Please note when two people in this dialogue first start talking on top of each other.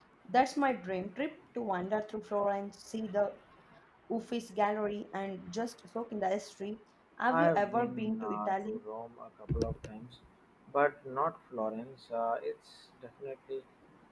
7 s

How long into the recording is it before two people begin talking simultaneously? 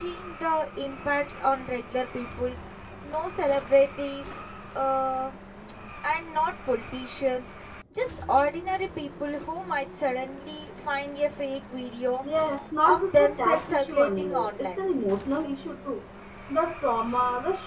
13 s

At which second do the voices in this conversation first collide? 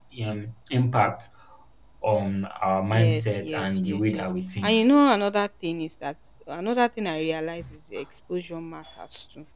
3 s

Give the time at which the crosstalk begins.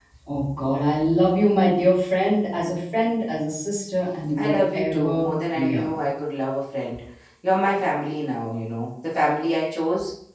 4 s

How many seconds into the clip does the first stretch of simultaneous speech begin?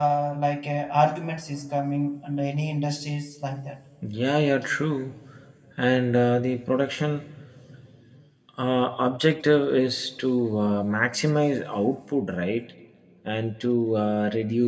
none

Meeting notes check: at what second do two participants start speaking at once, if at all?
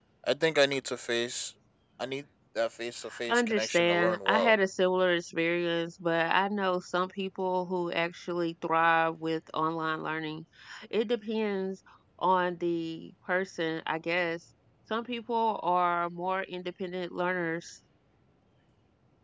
3 s

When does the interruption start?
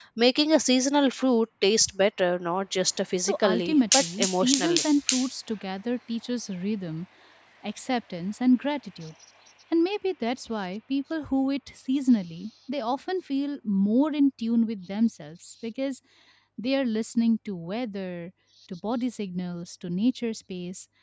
3 s

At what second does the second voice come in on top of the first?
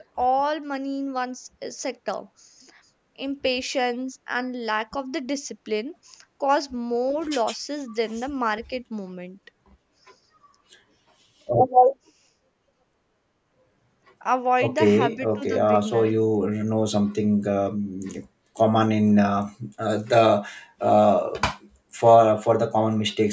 15 s

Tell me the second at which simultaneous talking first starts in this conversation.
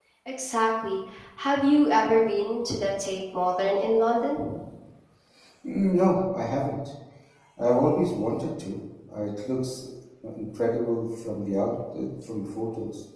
none

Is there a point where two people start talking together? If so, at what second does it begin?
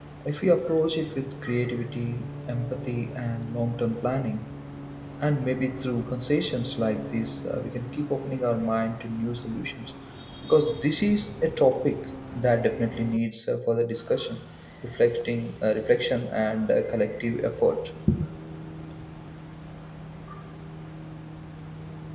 none

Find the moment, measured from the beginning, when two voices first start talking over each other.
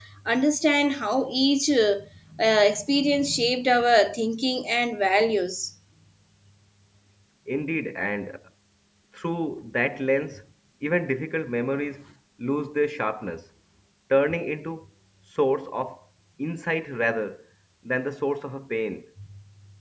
none

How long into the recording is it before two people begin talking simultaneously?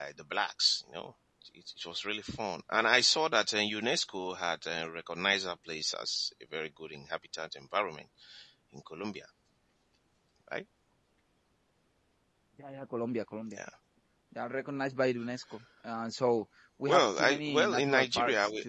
17 s

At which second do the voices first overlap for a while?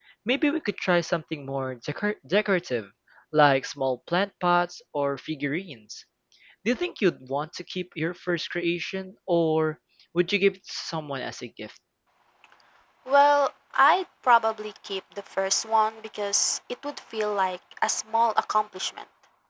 none

